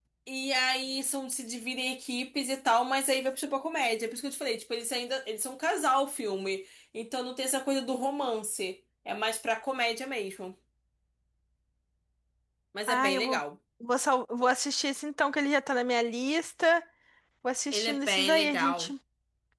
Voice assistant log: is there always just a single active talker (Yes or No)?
No